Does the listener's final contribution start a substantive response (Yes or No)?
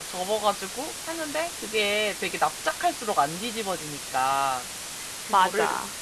No